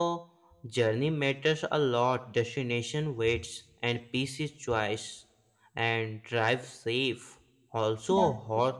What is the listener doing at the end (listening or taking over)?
listening